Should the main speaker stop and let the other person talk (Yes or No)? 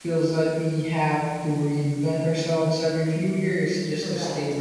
Yes